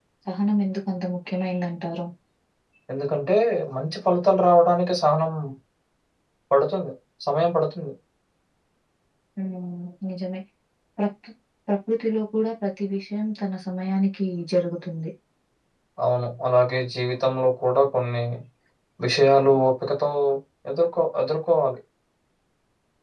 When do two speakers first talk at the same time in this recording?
none

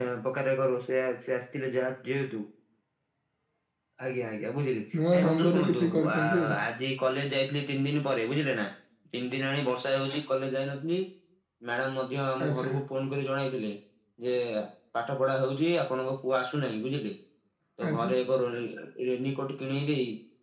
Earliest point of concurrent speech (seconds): 5.1 s

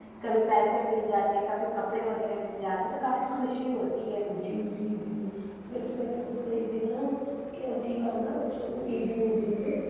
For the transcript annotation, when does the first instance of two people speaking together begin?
none

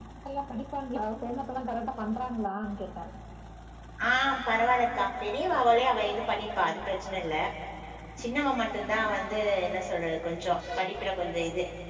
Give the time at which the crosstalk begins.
none

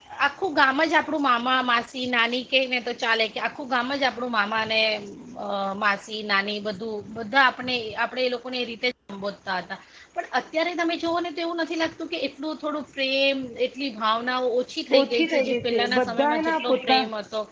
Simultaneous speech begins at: 14.9 s

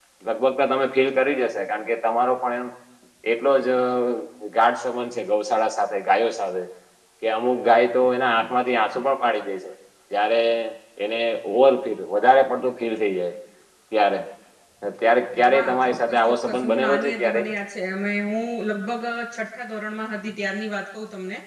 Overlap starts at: 15.5 s

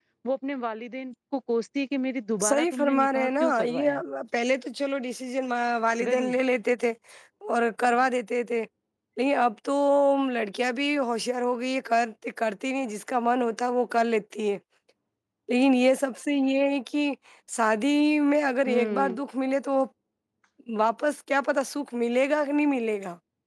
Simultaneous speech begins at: 2.5 s

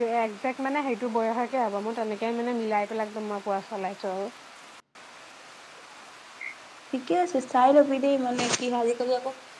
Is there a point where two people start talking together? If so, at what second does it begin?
none

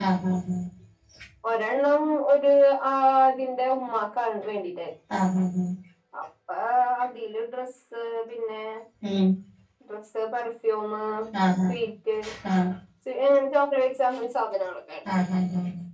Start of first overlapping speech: none

